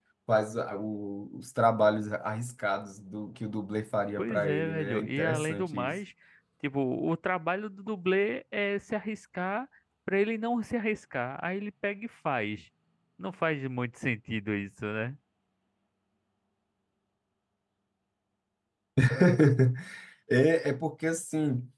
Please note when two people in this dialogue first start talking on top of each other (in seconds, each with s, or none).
4.2 s